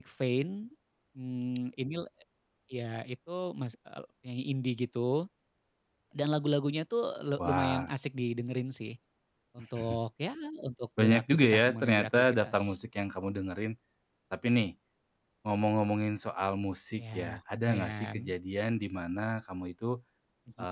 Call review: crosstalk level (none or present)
present